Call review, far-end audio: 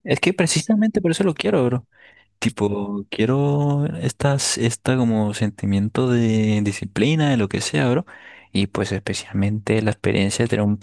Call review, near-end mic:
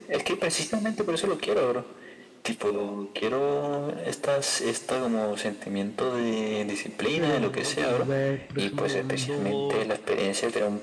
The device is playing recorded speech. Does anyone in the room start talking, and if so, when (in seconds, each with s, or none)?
7.1 s